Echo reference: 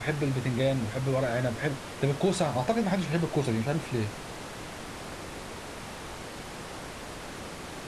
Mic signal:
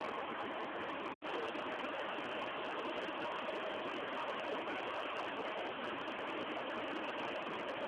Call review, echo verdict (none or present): none